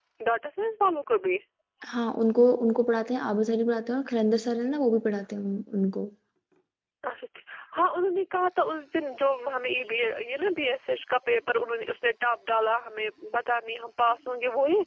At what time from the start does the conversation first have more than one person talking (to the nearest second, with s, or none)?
none